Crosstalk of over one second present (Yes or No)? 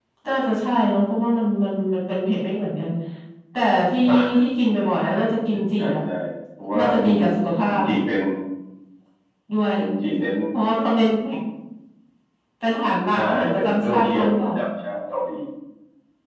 Yes